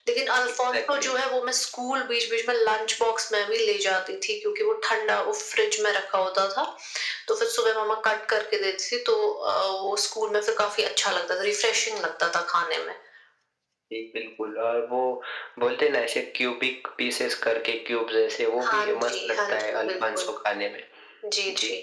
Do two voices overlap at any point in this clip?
Yes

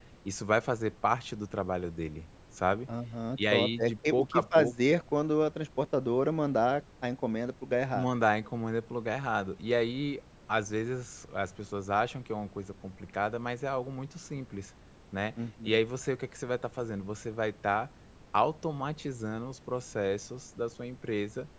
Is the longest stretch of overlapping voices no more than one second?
No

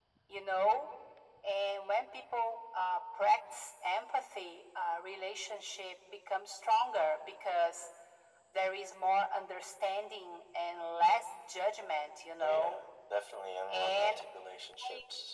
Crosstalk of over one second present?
No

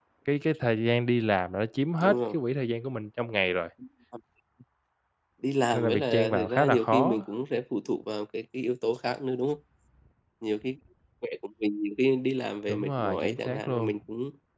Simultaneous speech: Yes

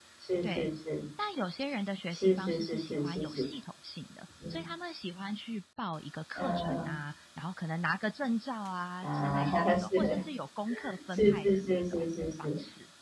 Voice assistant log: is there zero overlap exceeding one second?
No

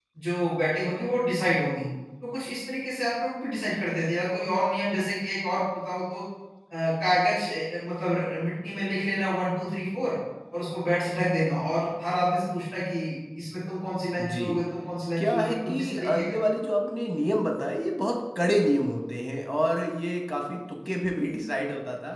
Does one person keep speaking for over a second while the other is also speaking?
Yes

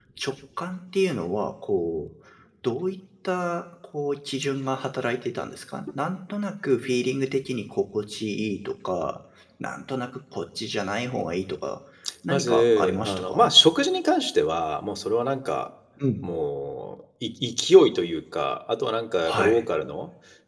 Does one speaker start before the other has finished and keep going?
Yes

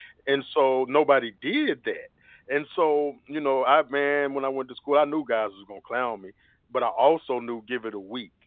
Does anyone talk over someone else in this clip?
No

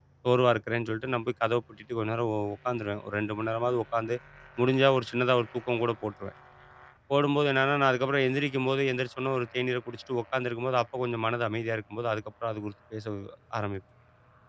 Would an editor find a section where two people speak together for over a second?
No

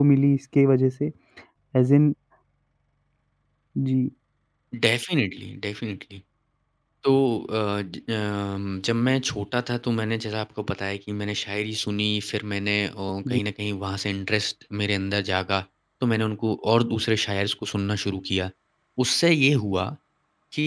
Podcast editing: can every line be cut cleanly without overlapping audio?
Yes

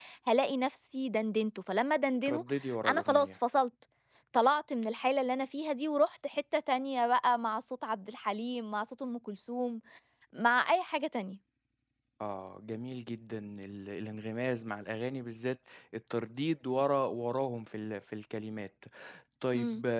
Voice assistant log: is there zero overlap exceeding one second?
Yes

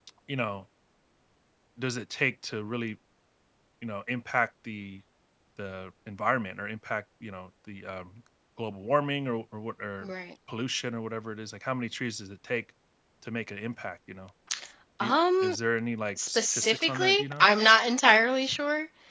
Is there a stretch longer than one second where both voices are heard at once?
Yes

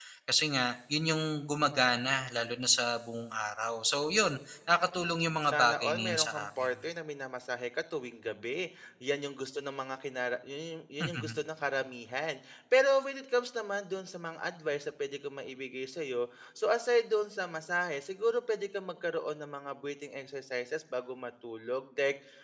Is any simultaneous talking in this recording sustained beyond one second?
Yes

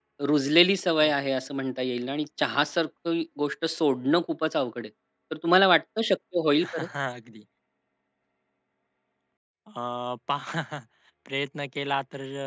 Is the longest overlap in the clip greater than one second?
No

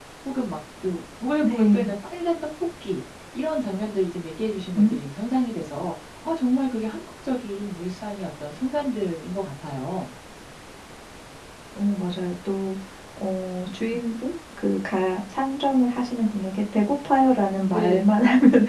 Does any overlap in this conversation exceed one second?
No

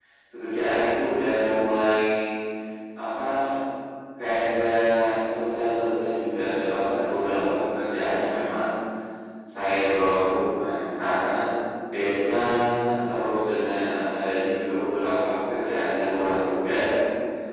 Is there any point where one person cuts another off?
No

